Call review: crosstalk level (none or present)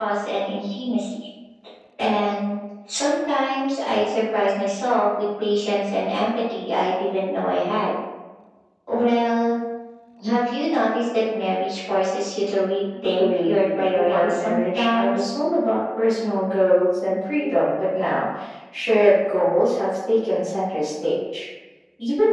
present